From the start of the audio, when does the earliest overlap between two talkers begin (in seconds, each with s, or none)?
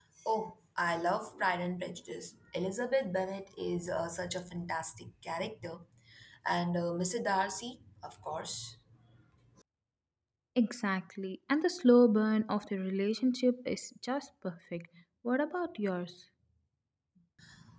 none